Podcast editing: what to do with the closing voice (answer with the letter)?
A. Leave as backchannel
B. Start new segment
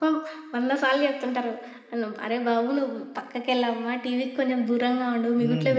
B